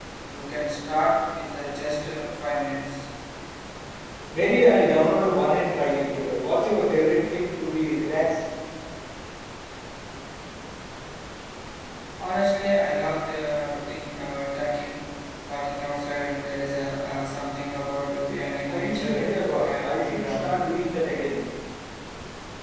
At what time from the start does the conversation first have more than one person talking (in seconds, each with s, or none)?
18.7 s